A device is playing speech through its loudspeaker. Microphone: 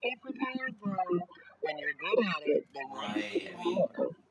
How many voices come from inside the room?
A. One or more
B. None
A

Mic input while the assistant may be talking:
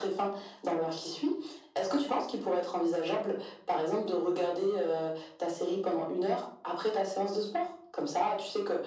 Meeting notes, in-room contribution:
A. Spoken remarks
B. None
B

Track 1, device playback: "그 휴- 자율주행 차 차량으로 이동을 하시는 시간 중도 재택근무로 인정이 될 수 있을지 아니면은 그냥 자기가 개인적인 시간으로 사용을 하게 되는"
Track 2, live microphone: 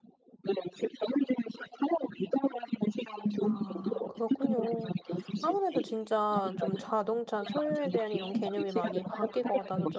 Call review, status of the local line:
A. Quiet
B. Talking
B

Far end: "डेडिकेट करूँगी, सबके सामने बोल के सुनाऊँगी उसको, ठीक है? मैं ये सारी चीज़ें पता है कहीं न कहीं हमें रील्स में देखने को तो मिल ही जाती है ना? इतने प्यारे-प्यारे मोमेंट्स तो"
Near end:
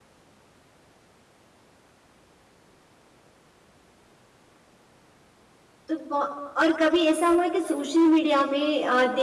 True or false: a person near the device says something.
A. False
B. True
B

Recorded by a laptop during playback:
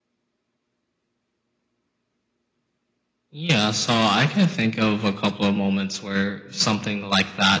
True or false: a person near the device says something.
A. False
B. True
A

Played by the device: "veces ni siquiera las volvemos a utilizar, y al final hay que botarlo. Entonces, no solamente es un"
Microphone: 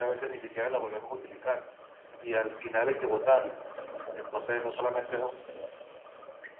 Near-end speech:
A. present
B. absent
B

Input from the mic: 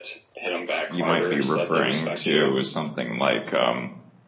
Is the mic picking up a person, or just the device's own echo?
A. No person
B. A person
B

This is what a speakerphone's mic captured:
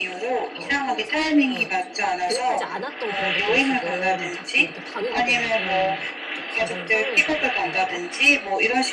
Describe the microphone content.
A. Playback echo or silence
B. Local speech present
B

